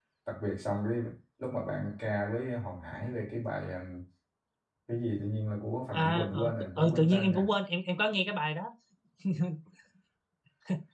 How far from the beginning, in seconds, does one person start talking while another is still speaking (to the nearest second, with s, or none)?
6 s